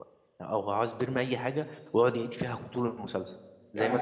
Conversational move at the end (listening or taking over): listening